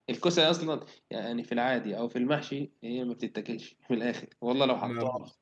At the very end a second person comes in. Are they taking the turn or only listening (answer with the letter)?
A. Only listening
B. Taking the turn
A